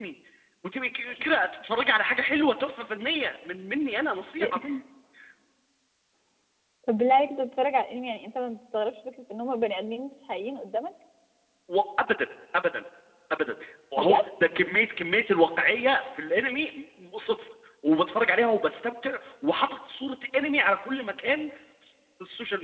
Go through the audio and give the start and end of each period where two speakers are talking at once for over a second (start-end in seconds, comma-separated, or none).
none